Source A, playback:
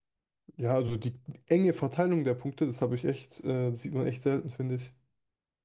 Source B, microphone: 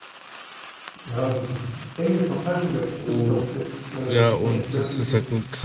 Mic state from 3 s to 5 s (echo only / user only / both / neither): both